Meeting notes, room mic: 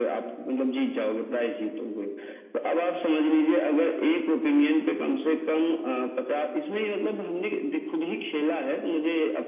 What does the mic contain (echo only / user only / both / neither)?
echo only